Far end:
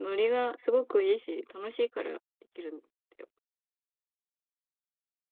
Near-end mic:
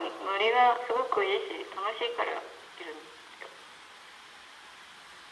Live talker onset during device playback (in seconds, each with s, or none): none